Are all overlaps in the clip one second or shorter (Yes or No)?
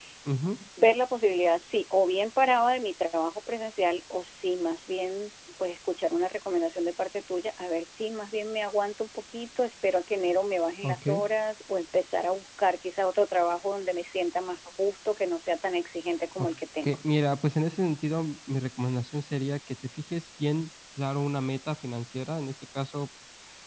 Yes